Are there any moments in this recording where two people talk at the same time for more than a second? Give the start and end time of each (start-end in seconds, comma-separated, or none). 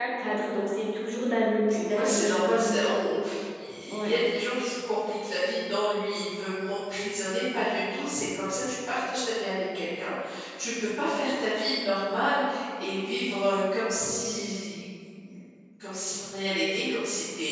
1.7-3.2